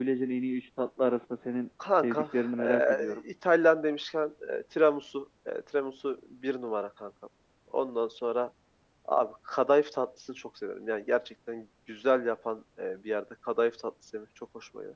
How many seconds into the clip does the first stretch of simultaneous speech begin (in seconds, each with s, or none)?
1.8 s